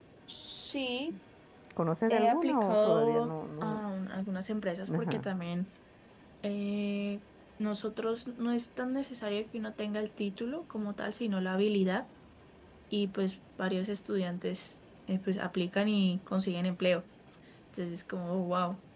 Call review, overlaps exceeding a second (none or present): present